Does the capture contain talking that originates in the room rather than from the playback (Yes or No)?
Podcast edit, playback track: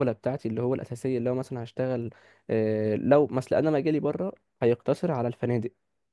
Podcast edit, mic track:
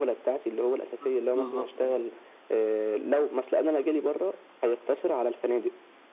Yes